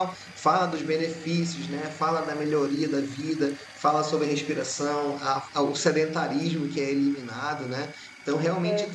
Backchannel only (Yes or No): Yes